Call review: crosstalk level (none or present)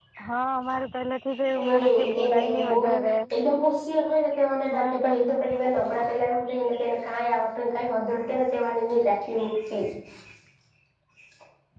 present